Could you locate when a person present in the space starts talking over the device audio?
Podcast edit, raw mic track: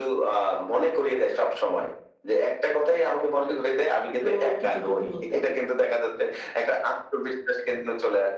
4.2 s

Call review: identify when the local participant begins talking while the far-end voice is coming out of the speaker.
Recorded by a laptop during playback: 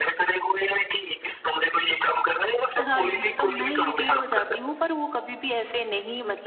2.9 s

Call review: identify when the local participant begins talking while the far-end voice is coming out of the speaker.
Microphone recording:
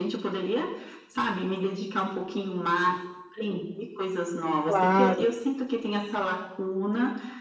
4.6 s

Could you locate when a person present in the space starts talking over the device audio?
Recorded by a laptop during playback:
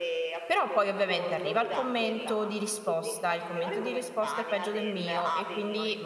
0.5 s

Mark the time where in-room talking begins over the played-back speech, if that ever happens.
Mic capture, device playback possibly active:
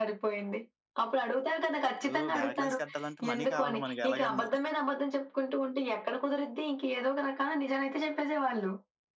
1.9 s

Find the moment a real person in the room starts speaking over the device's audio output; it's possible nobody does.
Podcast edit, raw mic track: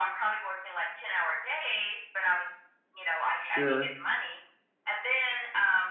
3.4 s

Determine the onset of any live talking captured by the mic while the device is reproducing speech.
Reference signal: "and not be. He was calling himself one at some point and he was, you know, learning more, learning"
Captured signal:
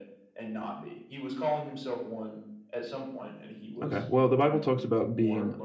3.8 s

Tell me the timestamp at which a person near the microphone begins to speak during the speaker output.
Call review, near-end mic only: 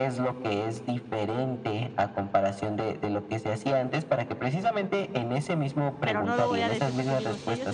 6.0 s

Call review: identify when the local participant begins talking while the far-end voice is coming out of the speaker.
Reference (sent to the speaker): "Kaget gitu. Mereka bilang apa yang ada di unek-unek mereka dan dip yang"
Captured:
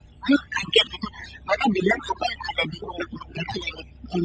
none

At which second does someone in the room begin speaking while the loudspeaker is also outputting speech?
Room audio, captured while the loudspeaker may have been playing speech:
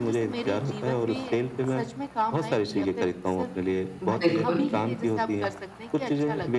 4.0 s

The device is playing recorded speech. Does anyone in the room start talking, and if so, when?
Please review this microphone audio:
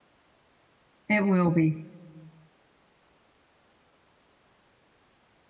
1.1 s

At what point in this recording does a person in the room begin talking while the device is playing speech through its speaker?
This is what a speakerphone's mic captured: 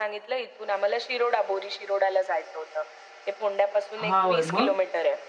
4.0 s

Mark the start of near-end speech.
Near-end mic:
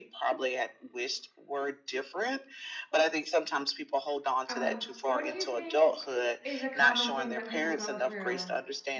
4.5 s

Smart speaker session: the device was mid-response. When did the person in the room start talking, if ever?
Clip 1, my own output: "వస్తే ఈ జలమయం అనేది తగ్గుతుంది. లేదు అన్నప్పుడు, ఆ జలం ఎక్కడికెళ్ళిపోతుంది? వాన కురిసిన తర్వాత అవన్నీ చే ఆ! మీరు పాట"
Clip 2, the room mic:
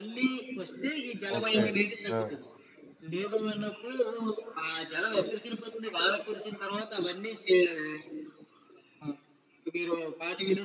1.4 s

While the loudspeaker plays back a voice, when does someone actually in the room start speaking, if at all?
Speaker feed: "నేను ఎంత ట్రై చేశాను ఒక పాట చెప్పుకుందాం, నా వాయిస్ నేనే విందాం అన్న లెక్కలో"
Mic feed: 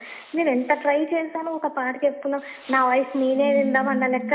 3.3 s

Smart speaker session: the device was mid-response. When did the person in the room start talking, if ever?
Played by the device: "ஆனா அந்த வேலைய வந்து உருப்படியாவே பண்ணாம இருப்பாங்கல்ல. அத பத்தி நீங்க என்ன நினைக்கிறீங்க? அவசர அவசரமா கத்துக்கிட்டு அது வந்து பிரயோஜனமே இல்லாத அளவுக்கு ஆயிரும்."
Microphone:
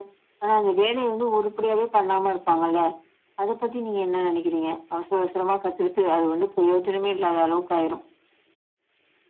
none

